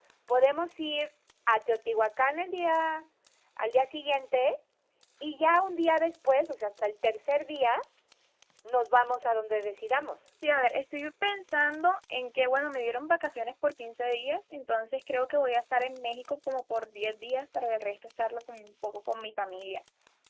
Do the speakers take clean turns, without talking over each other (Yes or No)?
Yes